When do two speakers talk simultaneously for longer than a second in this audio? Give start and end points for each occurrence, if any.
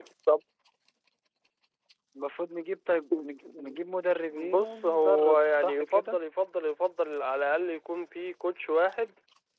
4.3-6.2

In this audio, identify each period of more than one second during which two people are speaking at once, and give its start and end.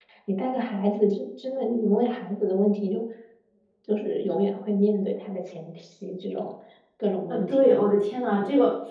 none

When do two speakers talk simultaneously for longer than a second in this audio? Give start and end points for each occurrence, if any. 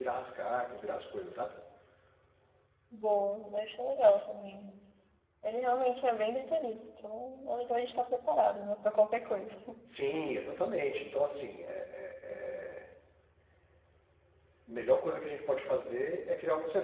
none

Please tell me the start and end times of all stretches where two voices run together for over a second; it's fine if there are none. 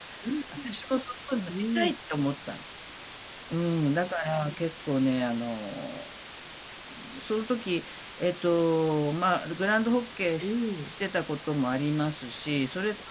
none

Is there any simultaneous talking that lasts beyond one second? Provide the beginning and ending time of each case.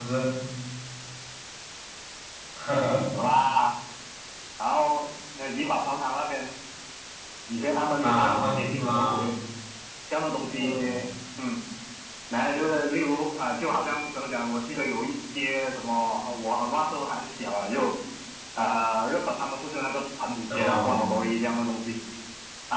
8.0-9.3

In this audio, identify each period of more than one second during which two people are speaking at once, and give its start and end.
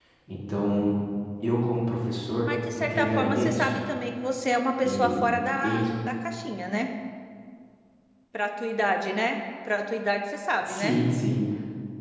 2.4-3.7

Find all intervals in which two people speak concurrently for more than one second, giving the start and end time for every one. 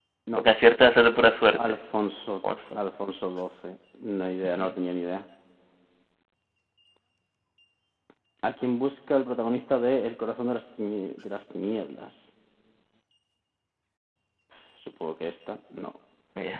none

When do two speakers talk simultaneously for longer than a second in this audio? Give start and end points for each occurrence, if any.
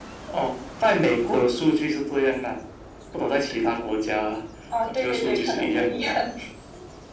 4.8-6.2

